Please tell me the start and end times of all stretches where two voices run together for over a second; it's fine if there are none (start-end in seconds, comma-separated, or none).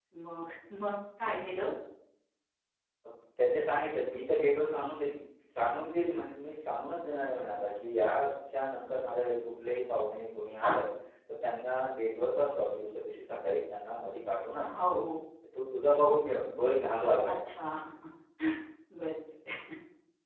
none